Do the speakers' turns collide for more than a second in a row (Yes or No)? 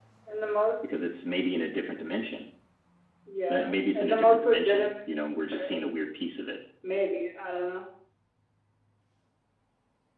Yes